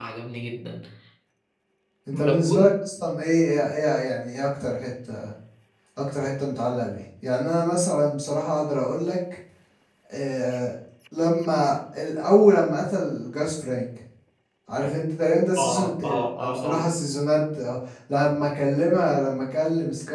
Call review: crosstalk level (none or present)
present